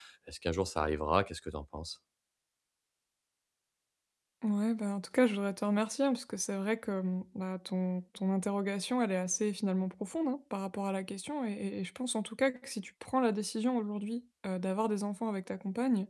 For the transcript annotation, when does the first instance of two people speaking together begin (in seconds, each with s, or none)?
none